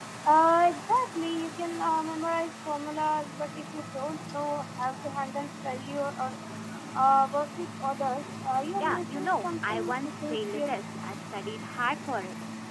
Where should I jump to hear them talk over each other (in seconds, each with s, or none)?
8.8 s